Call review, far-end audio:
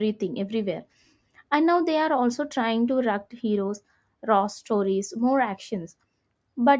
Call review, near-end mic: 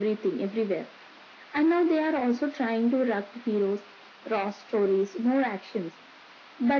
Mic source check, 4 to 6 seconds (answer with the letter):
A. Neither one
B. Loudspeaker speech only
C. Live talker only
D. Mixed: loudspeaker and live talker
B